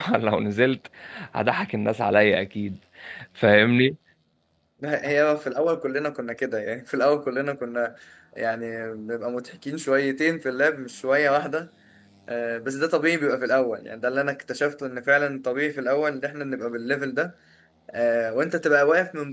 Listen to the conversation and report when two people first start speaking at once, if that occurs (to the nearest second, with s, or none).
none